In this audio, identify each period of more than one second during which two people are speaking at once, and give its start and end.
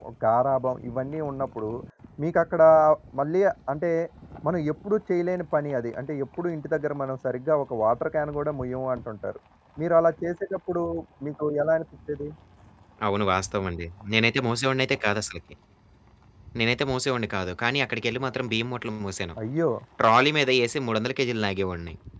none

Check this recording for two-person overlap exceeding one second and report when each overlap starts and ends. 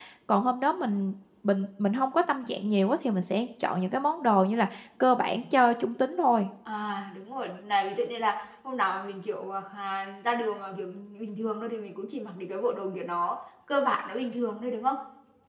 none

